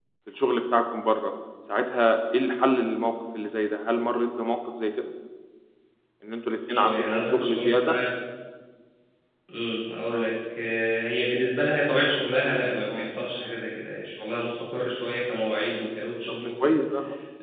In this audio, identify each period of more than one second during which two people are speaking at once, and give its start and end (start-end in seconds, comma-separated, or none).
6.7-8.0